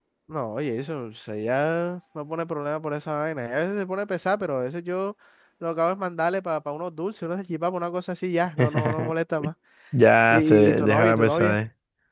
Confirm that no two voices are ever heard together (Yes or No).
No